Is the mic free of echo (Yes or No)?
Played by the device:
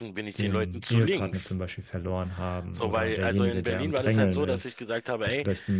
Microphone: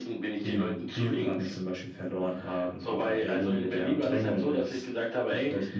No